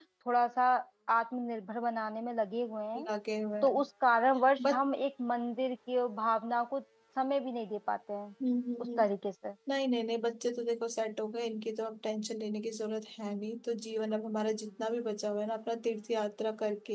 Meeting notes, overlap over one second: none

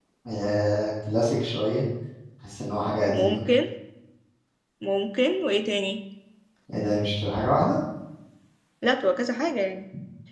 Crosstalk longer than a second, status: none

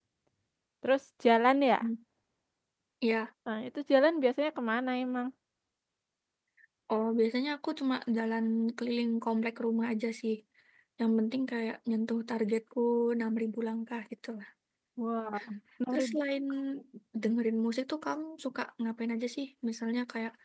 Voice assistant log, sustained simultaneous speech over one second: none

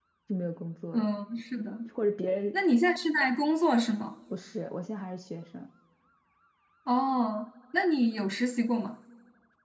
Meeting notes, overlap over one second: none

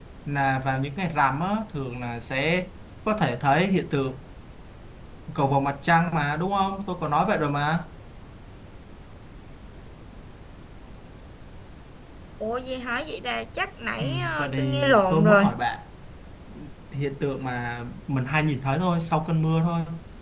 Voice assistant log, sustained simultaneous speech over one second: present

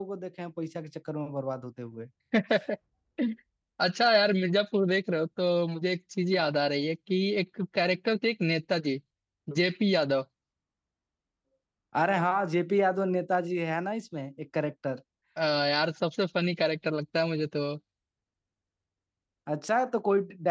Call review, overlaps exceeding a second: none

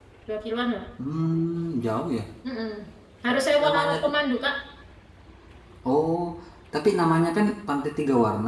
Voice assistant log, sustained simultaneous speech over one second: none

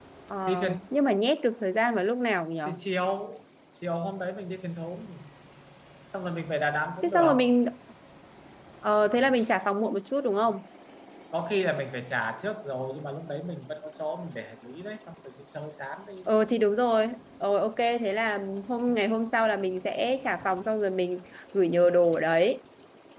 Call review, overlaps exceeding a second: none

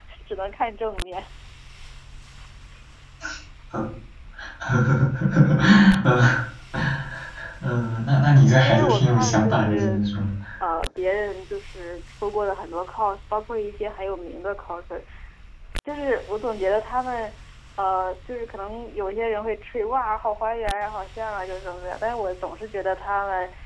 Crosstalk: present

